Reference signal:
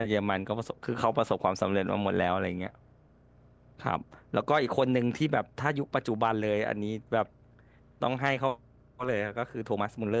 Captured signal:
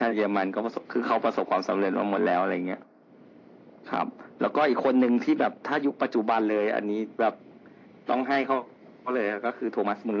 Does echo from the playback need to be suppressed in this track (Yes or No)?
Yes